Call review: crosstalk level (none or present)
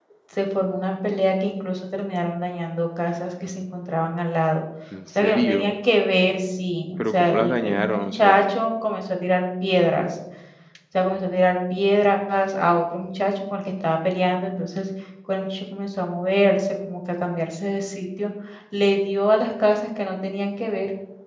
present